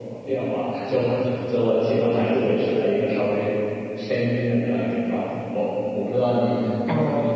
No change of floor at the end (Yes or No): No